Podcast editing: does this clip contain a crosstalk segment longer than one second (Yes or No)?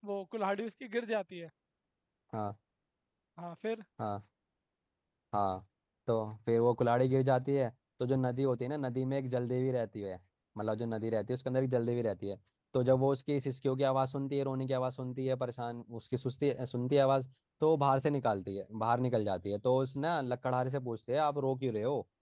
No